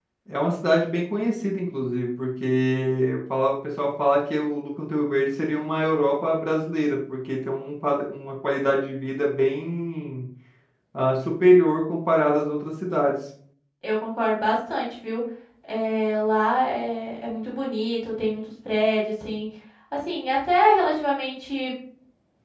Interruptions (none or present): none